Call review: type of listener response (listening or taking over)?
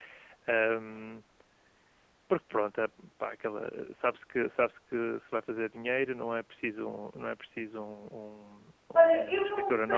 taking over